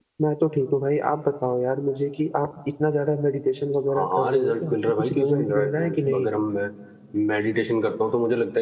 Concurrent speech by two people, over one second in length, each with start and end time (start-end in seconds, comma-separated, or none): 3.9-6.3